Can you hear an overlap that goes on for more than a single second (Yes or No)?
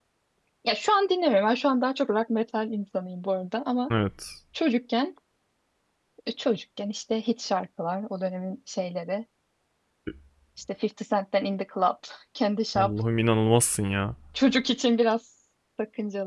No